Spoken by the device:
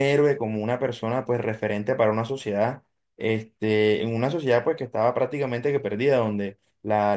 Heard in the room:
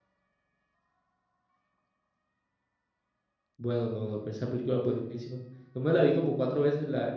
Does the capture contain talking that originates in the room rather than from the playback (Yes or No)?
Yes